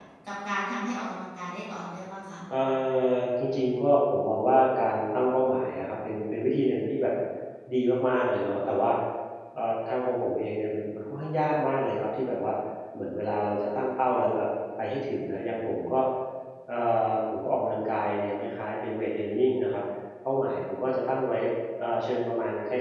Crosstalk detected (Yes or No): No